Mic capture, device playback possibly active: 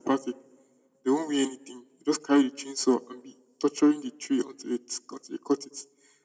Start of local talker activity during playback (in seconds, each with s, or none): none